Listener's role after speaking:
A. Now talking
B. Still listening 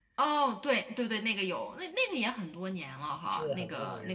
A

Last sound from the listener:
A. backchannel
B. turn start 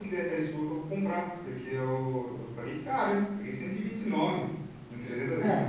B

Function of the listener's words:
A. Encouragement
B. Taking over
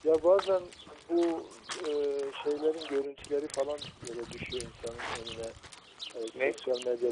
A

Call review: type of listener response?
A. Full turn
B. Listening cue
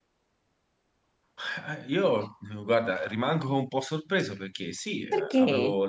B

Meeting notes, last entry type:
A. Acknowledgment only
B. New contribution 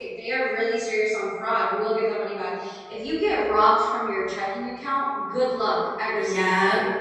B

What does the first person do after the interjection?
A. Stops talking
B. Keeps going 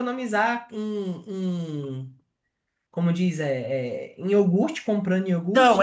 A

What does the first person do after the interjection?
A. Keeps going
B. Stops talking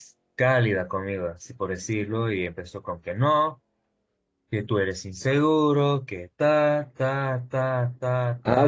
B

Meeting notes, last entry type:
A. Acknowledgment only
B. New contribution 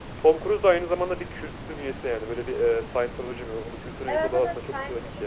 B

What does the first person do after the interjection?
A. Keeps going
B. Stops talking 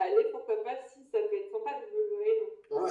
B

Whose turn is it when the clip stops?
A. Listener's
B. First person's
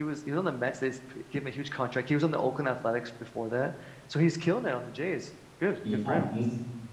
A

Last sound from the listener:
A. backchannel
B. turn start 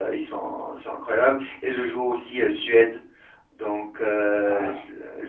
A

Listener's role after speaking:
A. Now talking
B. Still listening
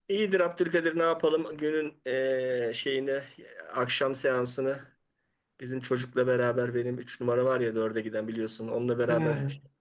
B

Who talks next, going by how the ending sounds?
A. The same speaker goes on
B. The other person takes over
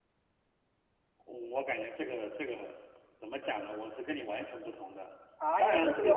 B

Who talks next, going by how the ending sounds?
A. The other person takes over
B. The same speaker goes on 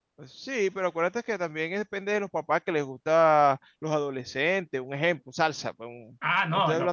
A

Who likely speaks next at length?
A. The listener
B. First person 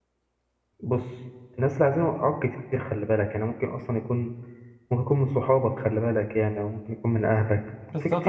A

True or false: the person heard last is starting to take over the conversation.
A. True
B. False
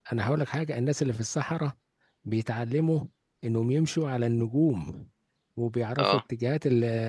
B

